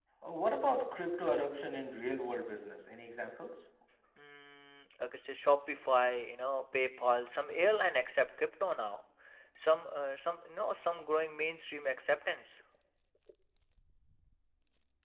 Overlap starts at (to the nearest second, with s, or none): none